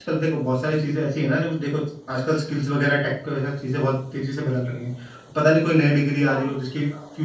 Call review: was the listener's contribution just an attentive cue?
Yes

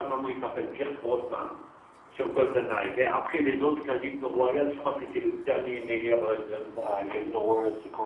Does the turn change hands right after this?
Yes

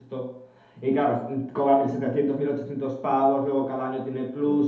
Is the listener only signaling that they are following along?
Yes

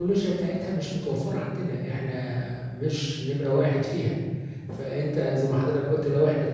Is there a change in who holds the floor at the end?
No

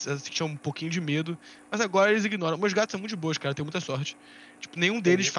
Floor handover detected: No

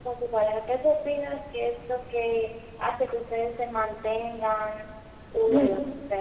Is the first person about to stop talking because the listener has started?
Yes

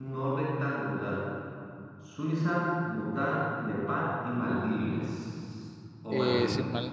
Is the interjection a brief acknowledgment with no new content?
No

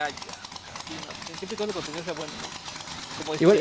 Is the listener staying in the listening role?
No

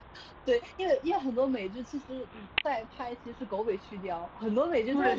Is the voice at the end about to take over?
Yes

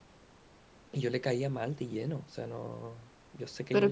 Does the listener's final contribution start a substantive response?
Yes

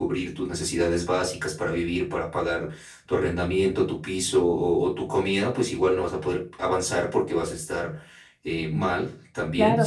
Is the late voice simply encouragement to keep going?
No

